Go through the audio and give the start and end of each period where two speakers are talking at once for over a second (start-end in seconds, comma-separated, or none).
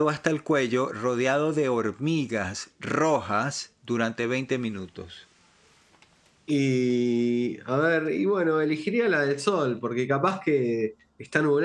none